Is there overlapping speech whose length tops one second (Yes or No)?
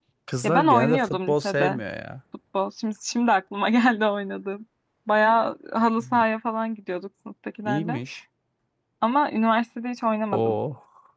Yes